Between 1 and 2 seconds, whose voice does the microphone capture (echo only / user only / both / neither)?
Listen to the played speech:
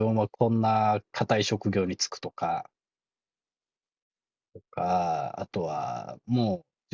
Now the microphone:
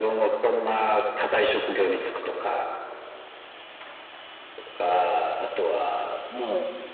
echo only